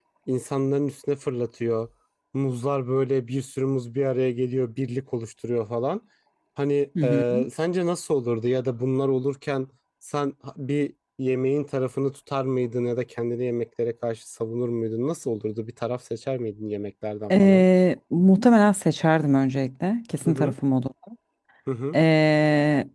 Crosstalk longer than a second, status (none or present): none